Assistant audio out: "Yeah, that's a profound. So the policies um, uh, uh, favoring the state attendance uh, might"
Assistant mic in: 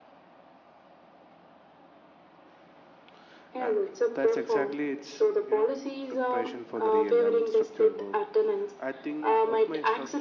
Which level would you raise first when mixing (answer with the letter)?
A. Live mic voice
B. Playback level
A